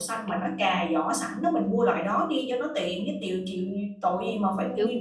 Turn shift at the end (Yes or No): Yes